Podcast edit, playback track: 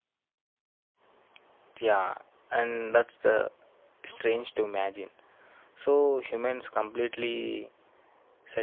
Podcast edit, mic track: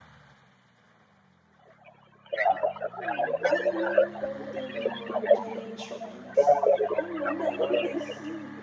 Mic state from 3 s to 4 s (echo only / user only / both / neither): both